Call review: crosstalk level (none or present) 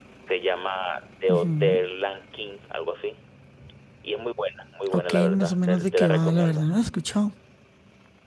present